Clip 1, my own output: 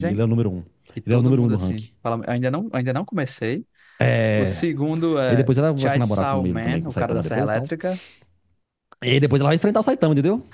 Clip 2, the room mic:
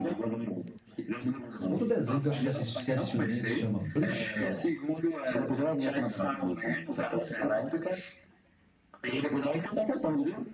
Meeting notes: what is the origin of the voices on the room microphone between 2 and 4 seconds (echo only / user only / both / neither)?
both